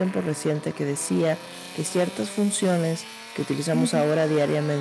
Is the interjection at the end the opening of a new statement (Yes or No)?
No